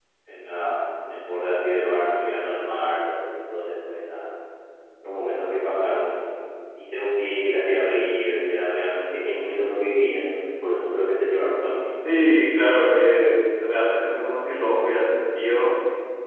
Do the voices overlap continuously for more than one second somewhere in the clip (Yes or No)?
No